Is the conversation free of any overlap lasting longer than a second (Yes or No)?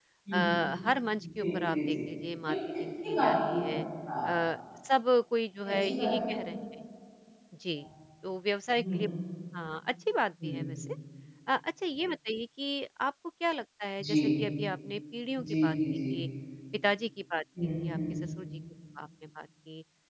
No